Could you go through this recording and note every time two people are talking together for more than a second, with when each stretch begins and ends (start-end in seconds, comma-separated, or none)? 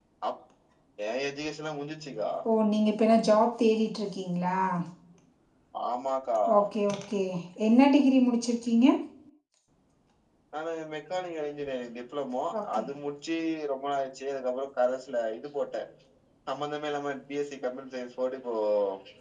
none